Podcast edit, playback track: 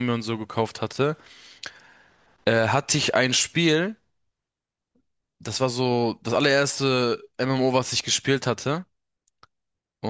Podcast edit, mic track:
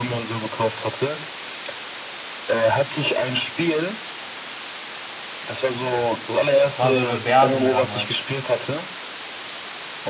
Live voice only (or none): Es war so eine Werbung damals.